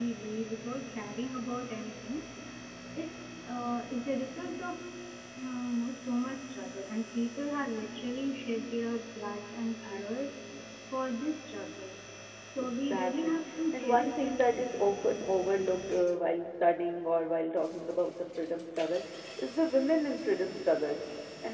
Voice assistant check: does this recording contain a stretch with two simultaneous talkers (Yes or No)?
Yes